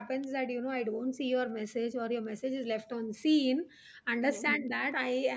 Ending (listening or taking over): listening